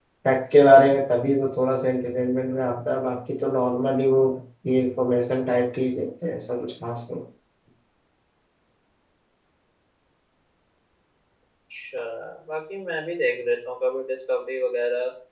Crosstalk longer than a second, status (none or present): none